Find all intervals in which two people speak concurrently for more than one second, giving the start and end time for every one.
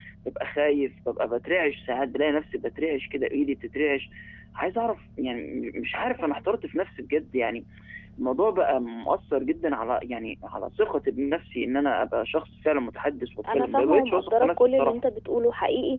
13.5-14.9

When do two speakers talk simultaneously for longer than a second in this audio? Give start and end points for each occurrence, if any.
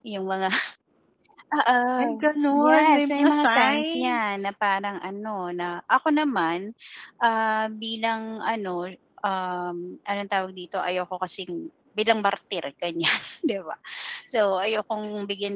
2.5-4.4

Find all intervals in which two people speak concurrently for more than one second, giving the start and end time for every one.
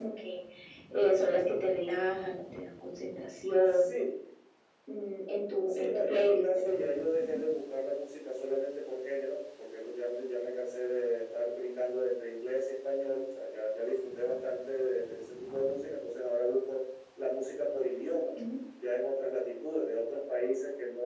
5.7-7.4

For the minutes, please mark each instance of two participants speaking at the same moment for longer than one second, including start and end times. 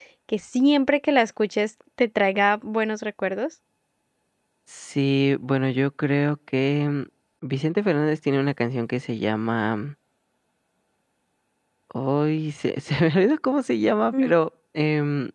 none

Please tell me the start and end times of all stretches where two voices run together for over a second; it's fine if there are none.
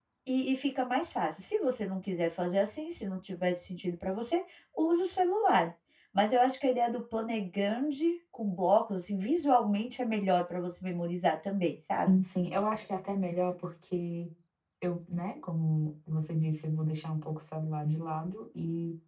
none

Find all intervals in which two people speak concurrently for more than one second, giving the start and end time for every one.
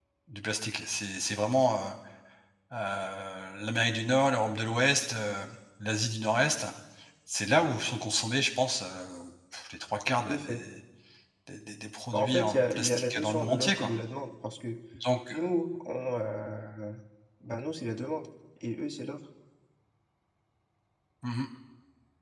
12.1-13.9

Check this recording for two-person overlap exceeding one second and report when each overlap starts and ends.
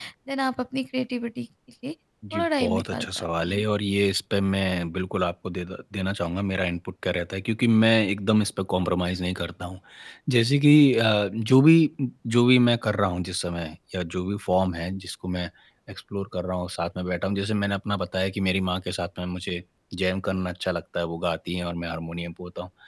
2.3-3.6

